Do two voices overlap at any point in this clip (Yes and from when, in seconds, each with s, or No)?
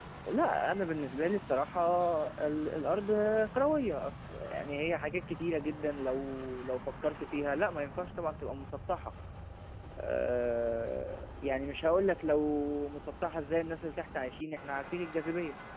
No